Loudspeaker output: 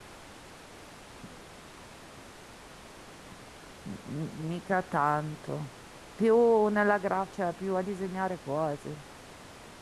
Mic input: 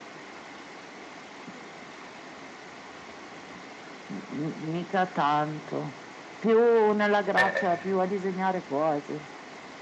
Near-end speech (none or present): present